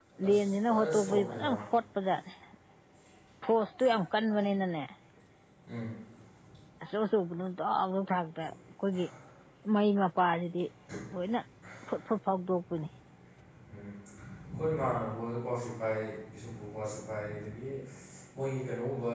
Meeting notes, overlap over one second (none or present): present